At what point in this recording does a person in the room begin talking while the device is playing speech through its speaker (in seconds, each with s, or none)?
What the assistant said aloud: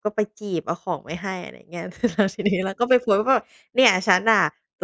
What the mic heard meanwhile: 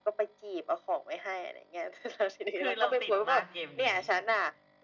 2.6 s